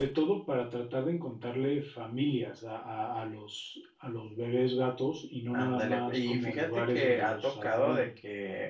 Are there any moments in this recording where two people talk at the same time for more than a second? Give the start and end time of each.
5.5-8.1

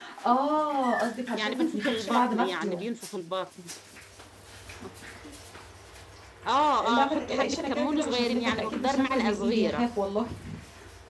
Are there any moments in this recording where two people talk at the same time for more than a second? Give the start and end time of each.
1.3-2.8, 6.9-9.9

